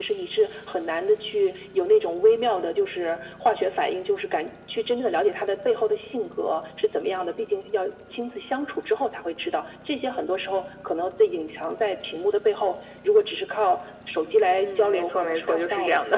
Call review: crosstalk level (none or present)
present